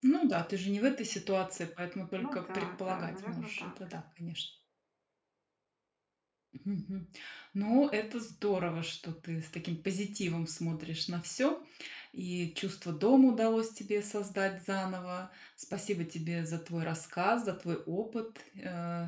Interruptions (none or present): present